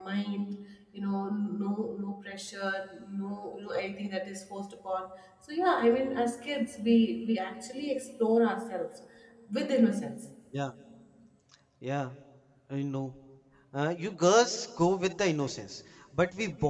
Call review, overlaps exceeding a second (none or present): none